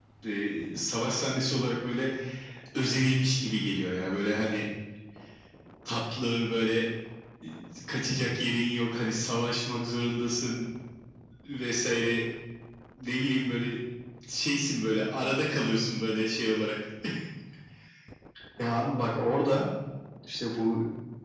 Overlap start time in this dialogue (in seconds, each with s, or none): none